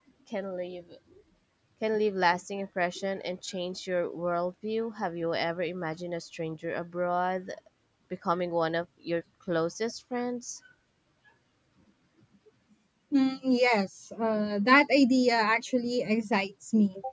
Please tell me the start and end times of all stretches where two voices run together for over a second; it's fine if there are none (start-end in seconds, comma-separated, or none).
none